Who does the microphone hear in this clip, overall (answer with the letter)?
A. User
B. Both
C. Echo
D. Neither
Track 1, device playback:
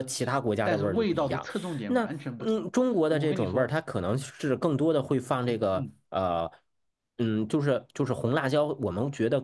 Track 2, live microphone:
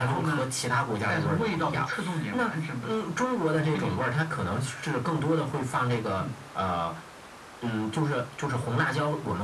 C